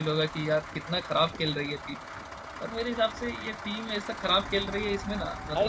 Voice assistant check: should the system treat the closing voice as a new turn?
No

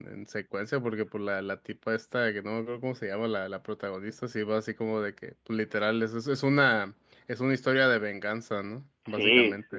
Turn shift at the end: Yes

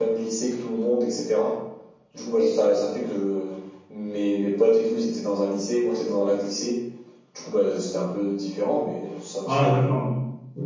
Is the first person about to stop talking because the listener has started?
Yes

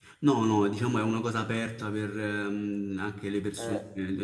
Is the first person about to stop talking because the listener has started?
No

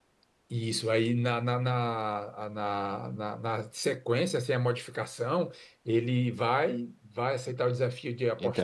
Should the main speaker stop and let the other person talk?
No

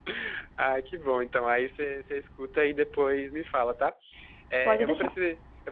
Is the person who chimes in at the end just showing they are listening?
Yes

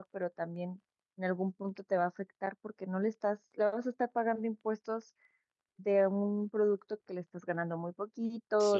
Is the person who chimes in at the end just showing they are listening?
Yes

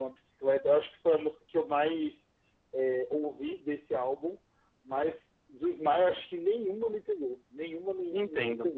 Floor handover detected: Yes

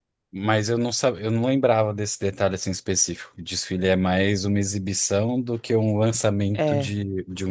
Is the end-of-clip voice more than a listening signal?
No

